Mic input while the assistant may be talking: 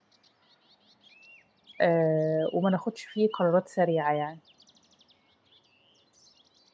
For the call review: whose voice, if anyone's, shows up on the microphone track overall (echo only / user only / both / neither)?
user only